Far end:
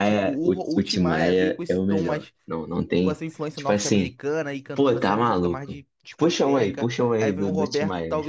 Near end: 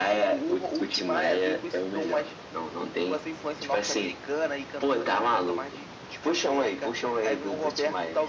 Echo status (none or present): present